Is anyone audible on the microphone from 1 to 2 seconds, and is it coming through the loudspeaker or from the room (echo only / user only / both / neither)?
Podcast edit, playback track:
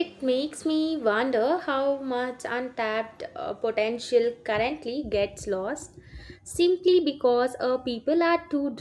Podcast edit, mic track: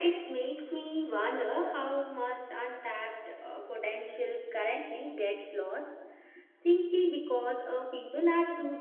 echo only